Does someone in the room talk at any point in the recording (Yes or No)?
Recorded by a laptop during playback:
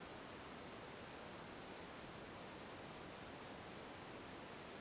No